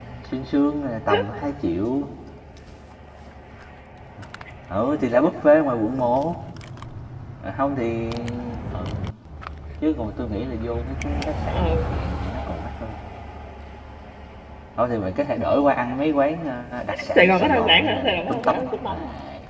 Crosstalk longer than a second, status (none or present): present